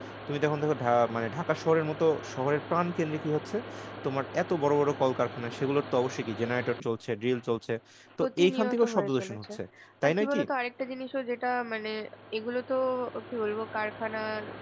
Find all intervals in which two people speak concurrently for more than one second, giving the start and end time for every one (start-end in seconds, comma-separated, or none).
8.2-9.4